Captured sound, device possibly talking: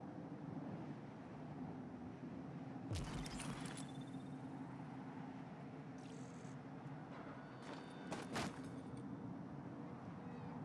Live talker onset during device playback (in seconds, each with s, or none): none